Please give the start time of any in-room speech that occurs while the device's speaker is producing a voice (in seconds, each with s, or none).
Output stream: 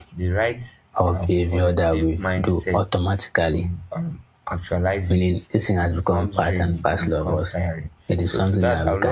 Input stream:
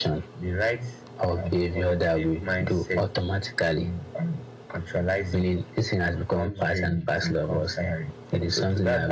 none